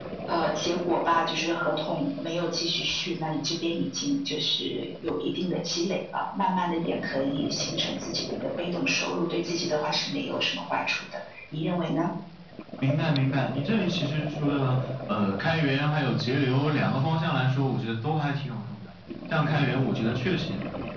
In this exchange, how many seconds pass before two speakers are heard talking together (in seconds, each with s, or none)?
none